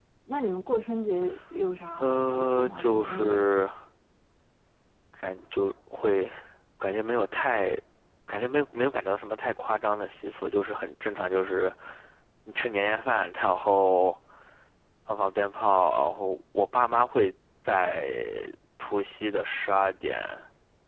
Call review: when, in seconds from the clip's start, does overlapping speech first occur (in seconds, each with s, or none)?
2.0 s